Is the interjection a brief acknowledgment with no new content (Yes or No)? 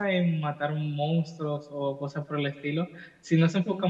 Yes